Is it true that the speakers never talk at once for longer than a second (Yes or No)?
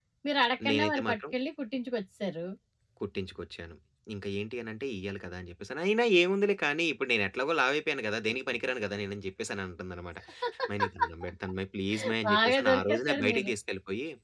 No